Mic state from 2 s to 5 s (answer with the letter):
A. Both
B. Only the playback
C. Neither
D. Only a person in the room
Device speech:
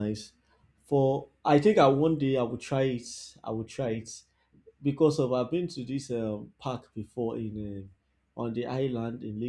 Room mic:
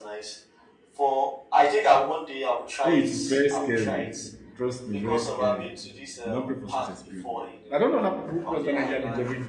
A